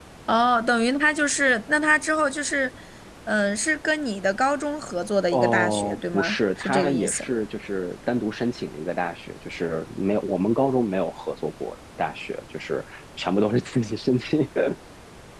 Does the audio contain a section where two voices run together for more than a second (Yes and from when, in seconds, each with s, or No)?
Yes, from 5.3 s